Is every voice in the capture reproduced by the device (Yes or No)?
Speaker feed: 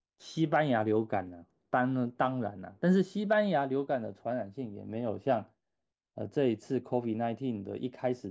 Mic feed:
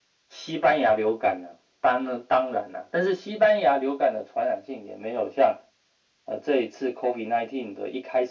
Yes